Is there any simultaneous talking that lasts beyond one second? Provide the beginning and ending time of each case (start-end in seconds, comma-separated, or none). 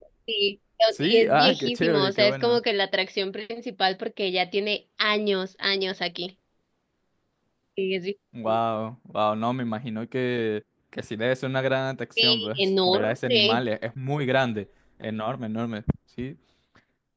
1.0-2.6, 12.2-13.6